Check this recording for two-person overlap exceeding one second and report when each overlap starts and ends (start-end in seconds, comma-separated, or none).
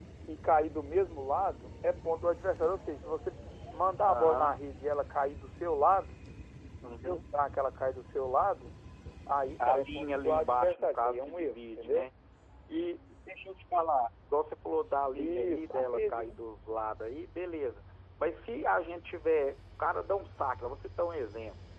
9.6-12.1, 15.1-16.4